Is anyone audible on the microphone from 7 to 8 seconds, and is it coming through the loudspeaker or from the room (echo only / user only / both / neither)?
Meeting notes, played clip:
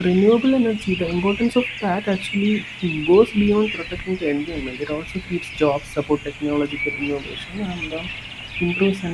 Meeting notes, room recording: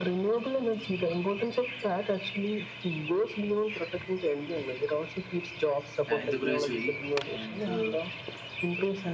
both